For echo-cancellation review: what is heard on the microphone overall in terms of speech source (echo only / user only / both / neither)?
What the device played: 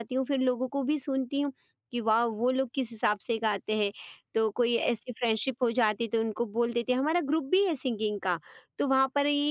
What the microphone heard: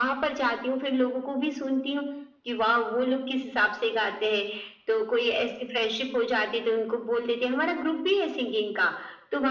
echo only